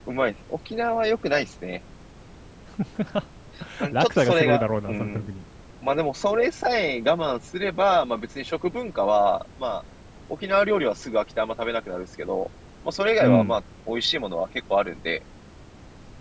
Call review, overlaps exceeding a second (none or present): present